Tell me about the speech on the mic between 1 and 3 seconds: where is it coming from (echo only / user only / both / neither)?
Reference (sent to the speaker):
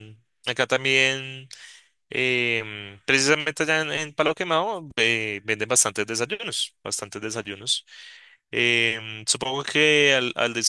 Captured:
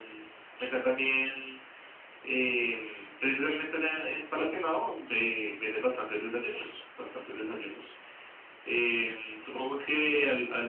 echo only